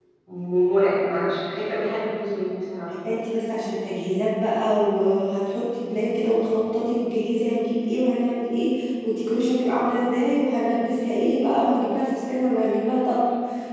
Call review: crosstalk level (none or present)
none